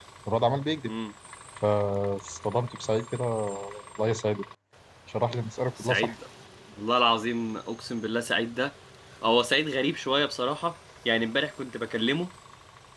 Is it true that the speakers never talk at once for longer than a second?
Yes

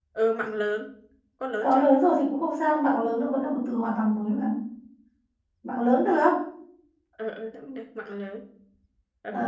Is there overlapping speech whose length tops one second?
No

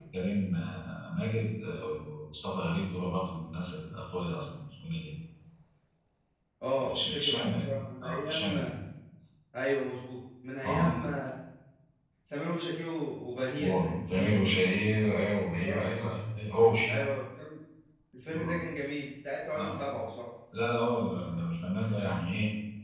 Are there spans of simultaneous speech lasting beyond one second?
Yes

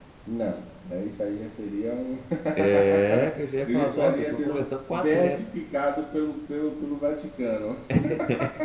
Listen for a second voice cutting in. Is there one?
Yes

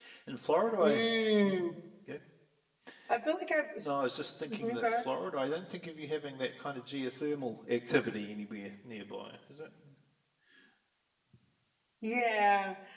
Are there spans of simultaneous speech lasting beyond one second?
No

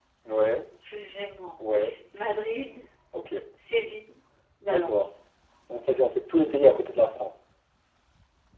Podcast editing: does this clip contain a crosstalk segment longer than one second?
No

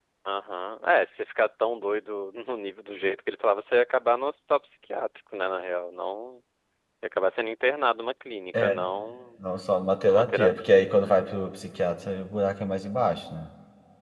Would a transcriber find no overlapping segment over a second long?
No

